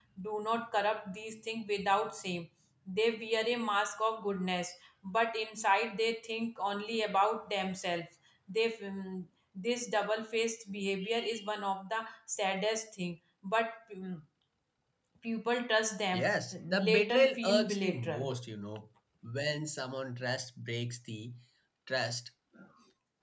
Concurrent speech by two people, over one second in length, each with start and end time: 16.2-18.3

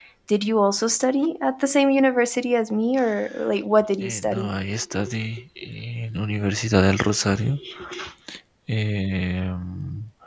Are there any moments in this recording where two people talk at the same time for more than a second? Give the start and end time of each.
none

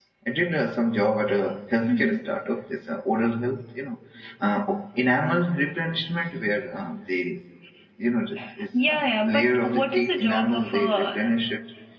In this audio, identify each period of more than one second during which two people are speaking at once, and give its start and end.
8.8-11.4

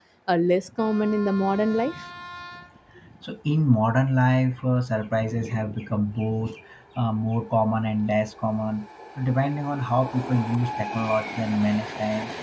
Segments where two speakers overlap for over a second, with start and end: none

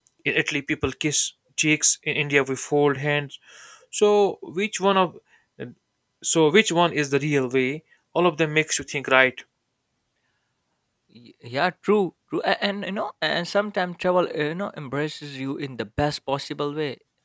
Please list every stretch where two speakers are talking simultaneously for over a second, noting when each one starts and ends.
none

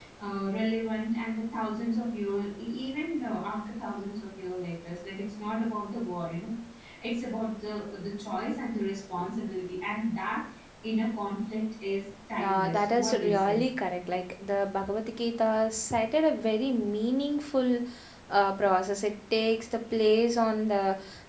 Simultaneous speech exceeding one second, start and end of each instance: 12.4-13.6

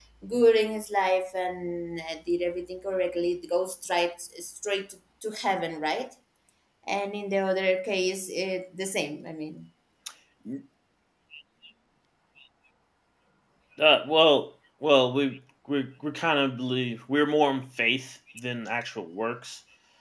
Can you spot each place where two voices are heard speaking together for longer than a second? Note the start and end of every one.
none

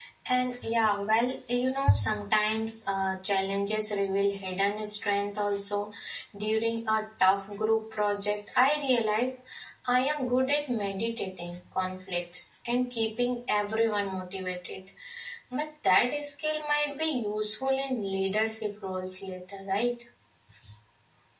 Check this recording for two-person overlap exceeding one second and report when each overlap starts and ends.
none

